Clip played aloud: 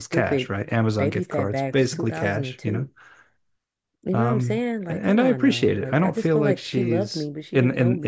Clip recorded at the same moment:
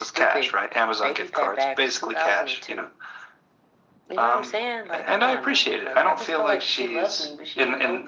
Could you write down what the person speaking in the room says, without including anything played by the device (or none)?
none